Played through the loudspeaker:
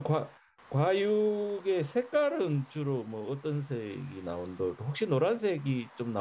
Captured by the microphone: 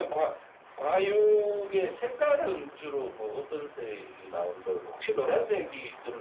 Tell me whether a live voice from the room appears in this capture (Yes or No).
No